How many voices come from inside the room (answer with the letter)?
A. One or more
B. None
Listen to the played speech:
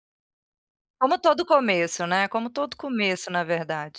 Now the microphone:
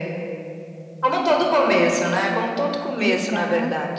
A